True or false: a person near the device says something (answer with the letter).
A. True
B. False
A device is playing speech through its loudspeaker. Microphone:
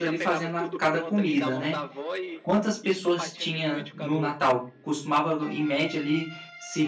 A